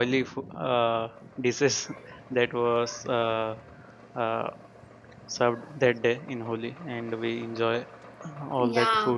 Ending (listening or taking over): taking over